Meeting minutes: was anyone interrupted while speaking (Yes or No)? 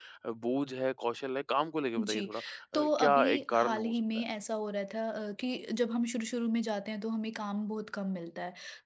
Yes